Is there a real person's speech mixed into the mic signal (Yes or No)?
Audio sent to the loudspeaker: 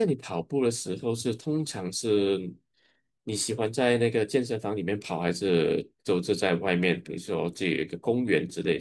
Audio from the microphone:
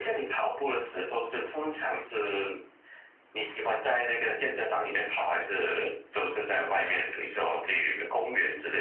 No